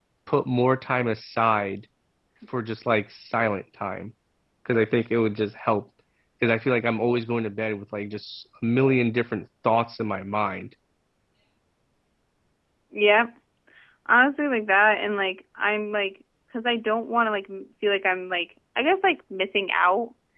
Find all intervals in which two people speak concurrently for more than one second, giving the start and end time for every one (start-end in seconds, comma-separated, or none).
none